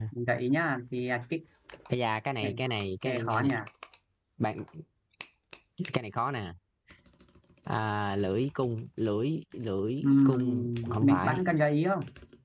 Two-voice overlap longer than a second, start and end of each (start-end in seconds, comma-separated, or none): 10.0-11.4